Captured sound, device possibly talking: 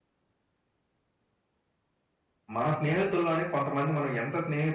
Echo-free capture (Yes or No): Yes